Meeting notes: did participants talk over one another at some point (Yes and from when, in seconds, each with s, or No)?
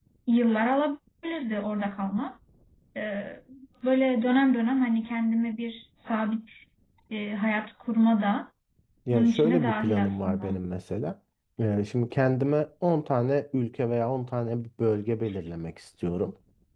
Yes, from 9.1 s